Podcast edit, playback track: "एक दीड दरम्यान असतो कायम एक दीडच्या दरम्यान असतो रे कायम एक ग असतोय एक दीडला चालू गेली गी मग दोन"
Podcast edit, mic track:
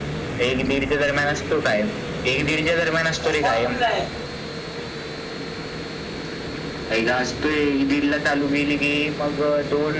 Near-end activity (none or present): present